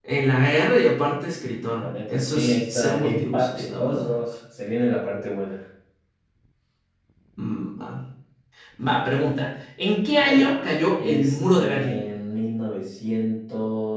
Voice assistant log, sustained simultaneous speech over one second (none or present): present